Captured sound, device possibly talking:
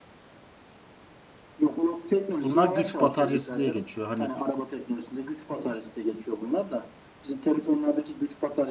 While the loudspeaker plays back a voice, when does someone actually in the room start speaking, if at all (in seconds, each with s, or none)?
2.3 s